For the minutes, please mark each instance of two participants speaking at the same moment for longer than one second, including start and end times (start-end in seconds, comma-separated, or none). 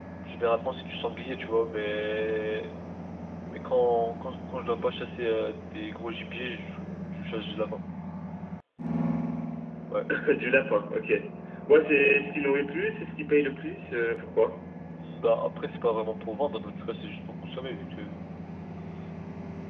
none